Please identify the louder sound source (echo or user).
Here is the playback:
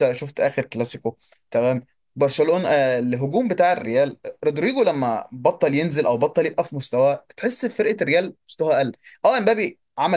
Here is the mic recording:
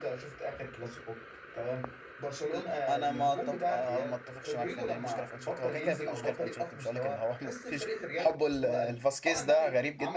user